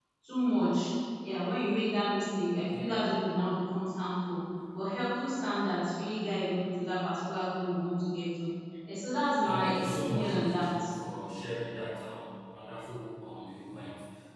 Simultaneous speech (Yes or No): Yes